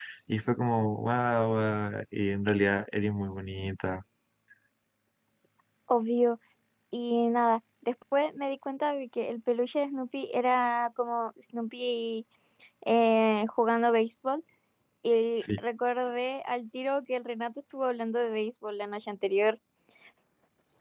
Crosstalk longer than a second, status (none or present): none